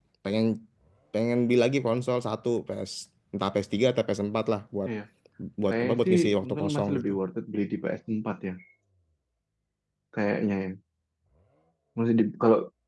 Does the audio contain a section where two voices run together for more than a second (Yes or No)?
Yes